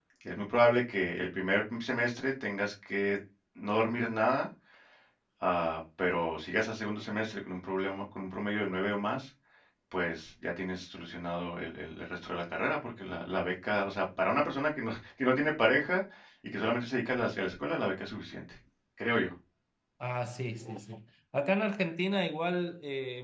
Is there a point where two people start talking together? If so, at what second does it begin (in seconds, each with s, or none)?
none